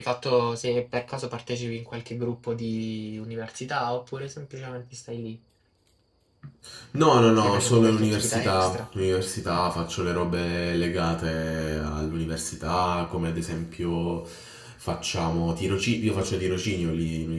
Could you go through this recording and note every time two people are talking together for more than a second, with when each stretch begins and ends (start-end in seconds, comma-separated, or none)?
7.4-8.9